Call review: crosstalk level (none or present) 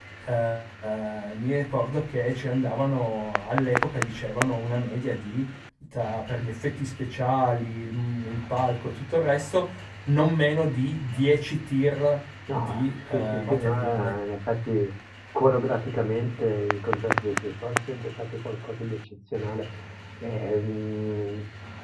present